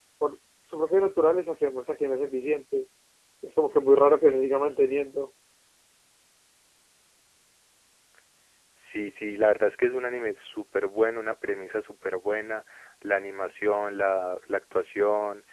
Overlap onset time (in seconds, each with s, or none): none